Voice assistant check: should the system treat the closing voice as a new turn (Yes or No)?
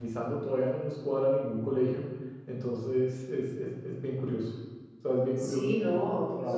Yes